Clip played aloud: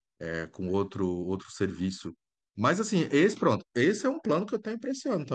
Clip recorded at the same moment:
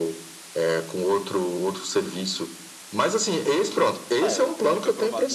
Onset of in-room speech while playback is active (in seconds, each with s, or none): 4.2 s